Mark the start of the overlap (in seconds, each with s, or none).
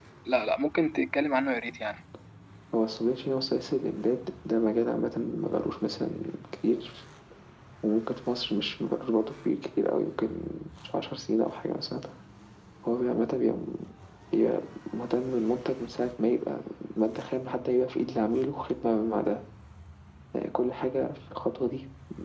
none